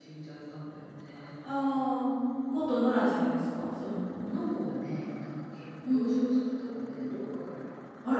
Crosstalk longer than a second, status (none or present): none